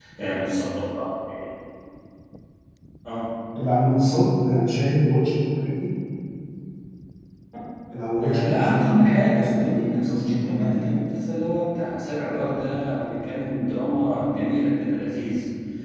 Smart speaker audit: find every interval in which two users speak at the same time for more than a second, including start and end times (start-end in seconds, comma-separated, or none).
8.2-10.9